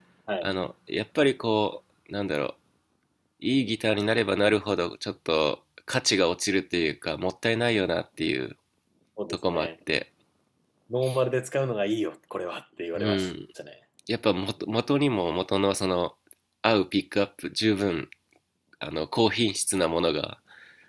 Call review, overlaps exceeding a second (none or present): none